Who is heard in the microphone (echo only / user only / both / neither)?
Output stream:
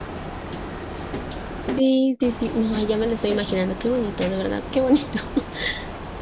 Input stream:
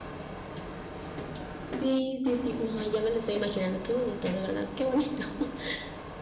echo only